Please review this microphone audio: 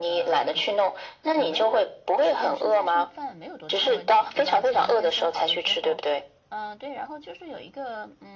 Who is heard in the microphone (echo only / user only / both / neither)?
both